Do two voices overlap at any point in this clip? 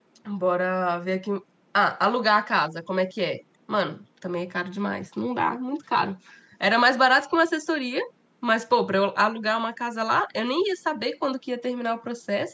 No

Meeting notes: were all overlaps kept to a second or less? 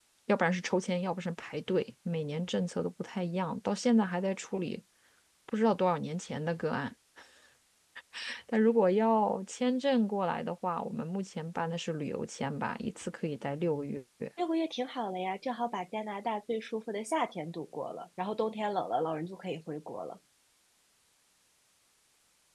Yes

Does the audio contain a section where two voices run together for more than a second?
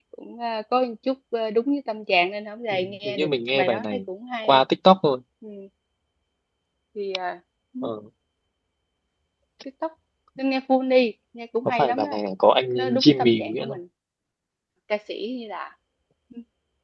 Yes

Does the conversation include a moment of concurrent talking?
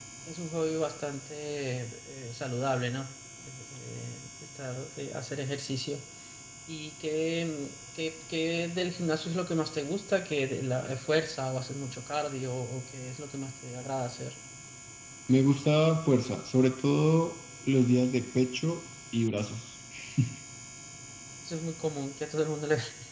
No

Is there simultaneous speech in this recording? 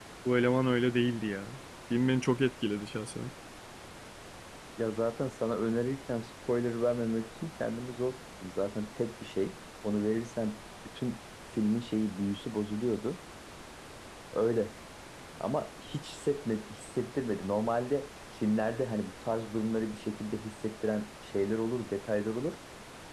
No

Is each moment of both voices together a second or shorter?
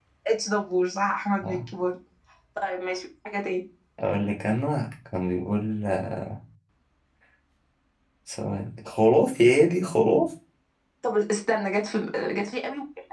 Yes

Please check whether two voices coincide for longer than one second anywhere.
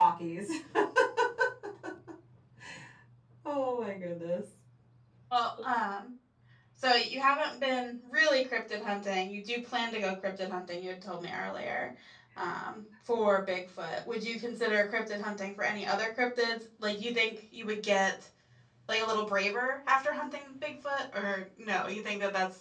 No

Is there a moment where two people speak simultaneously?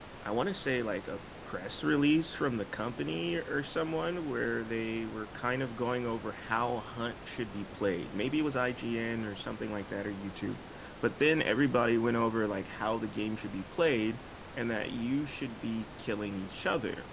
No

